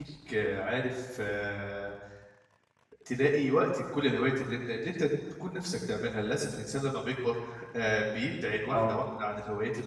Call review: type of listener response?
listening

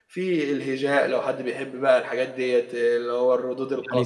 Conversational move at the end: taking over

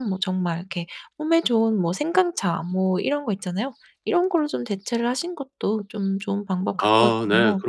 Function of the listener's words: taking over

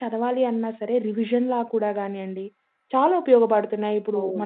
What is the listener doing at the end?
taking over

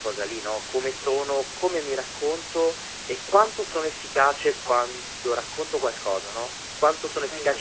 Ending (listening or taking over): taking over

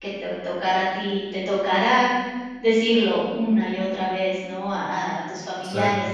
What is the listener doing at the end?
listening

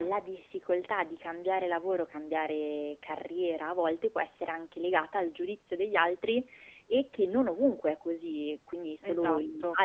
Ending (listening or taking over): listening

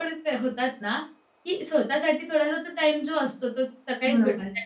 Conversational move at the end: listening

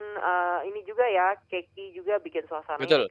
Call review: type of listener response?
listening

